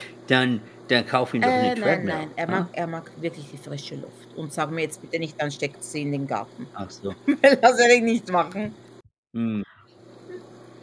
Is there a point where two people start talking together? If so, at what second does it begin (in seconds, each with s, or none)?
1.4 s